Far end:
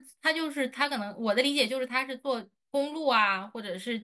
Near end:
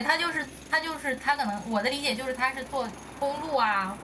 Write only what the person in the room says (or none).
none